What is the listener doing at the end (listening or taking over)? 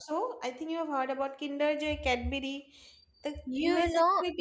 taking over